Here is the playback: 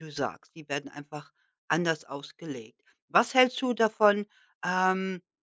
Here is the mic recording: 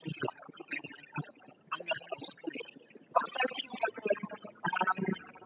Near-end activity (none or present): none